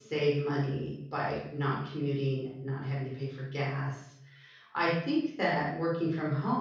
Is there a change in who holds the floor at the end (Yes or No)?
No